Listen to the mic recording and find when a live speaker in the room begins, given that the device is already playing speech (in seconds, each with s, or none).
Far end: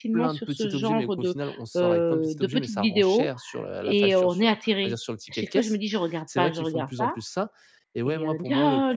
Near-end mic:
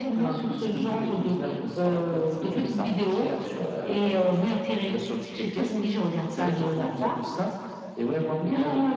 none